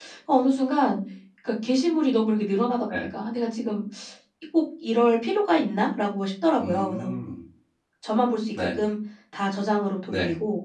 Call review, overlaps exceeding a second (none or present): none